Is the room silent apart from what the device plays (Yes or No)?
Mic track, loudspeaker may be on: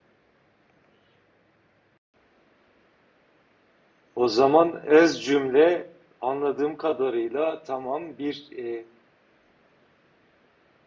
No